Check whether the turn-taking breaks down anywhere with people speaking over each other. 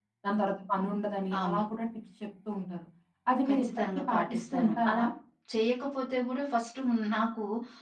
Yes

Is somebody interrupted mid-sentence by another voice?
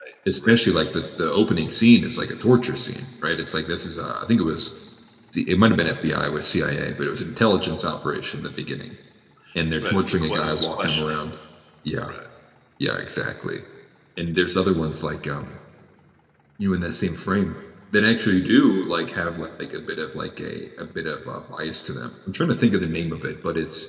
Yes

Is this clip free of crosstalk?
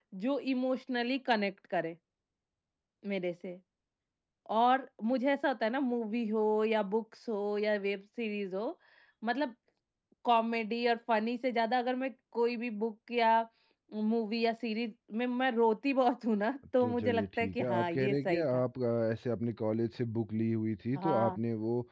No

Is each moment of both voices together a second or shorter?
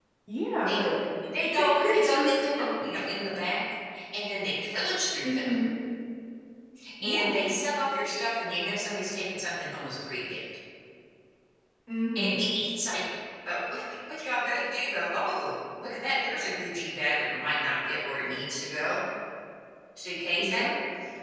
No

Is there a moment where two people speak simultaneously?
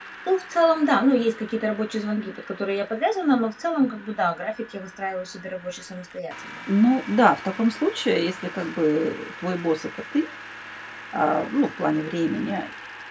No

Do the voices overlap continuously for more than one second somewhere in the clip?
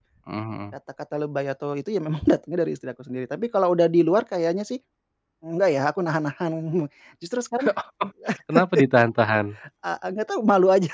No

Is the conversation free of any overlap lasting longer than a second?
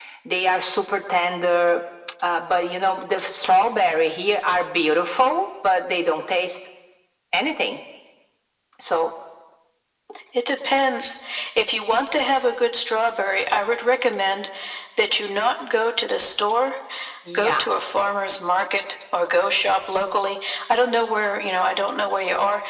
Yes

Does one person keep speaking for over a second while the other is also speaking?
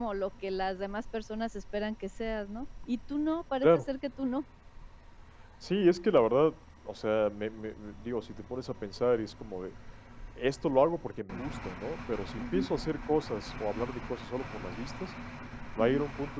No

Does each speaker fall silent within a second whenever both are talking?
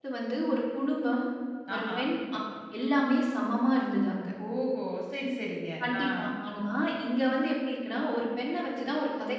Yes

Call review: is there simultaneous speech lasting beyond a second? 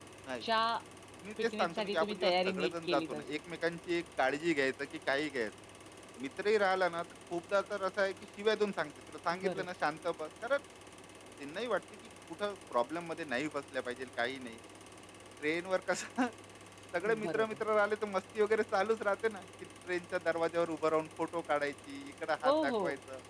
Yes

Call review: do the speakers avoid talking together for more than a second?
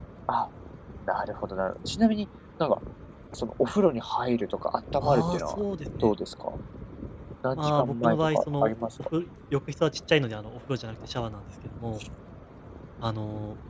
No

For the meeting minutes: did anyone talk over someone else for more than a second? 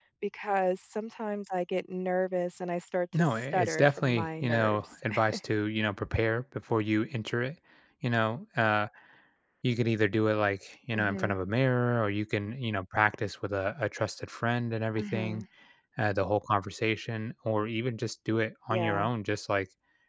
Yes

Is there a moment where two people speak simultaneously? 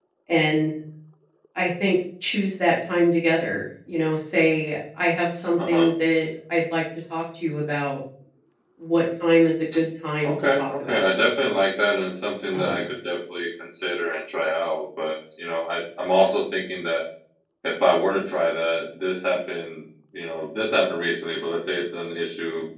Yes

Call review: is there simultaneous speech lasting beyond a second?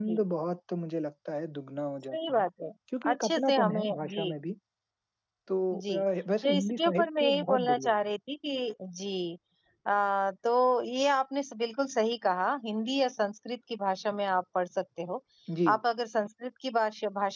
Yes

